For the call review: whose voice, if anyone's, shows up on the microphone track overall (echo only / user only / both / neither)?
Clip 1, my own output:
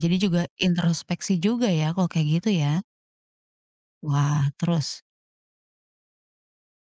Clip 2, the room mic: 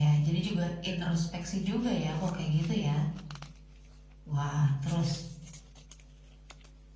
echo only